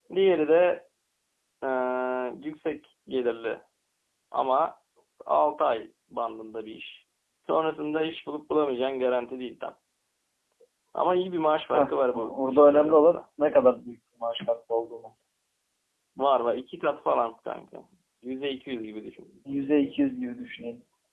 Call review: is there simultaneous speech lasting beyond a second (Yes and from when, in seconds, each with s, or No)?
Yes, from 11.7 s